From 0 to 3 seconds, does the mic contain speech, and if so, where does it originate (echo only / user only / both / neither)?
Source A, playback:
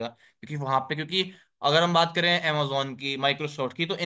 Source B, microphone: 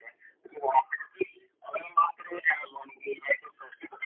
echo only